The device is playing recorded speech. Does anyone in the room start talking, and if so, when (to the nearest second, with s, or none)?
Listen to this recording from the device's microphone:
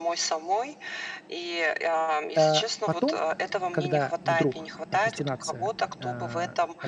2 s